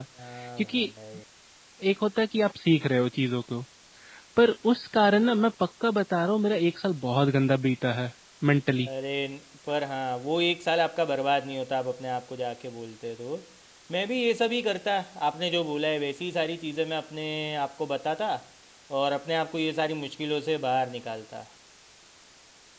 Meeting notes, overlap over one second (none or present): none